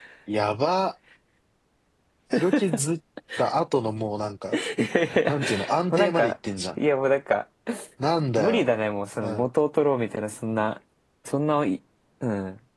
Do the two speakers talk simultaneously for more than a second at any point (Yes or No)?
No